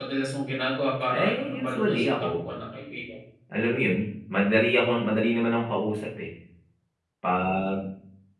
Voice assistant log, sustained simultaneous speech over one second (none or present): present